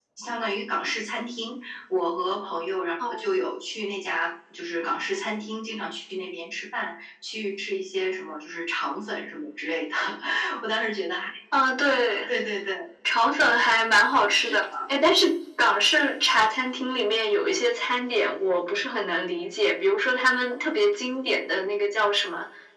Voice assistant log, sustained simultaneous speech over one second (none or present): none